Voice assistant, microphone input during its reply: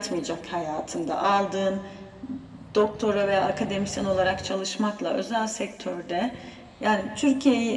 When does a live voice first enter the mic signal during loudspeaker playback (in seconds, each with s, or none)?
none